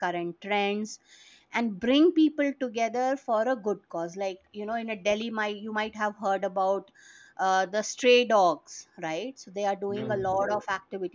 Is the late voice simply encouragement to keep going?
Yes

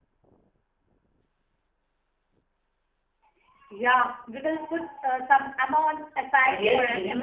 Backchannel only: No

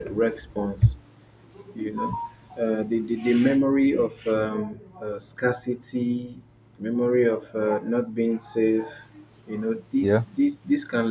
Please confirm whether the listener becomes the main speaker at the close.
No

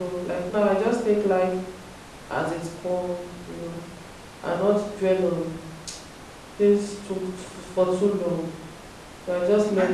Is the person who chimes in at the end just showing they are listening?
No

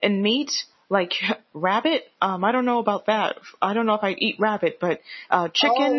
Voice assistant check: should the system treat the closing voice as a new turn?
Yes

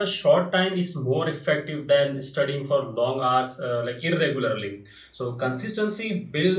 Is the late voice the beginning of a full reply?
No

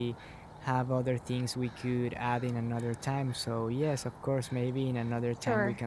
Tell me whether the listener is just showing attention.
No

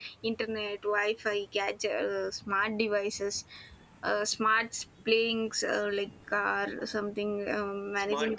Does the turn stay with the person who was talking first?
No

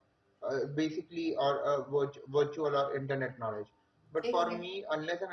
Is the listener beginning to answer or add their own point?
No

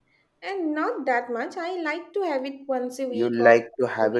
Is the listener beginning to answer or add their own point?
Yes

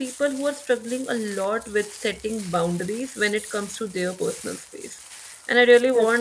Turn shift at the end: No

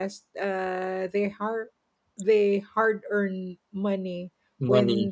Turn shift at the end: No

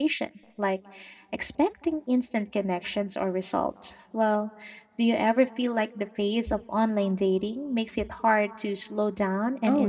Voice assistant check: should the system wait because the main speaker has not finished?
No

